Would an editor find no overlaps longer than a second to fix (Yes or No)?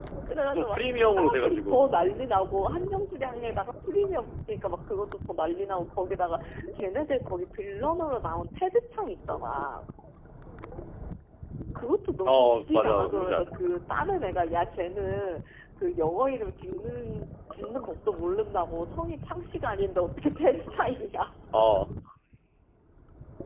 No